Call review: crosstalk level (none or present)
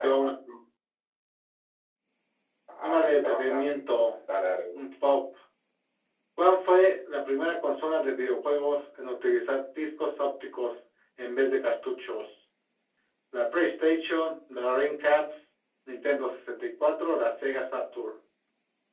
present